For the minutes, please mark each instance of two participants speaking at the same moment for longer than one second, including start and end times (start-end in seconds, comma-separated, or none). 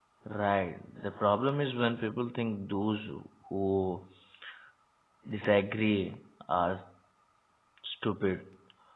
none